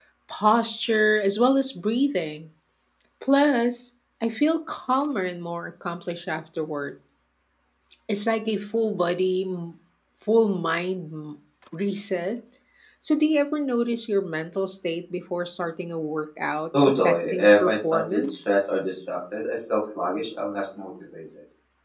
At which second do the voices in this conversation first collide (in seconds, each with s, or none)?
16.7 s